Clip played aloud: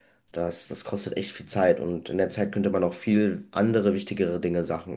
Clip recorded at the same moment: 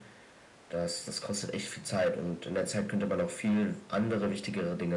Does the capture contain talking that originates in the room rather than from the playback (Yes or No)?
No